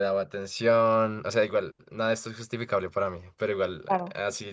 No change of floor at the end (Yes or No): Yes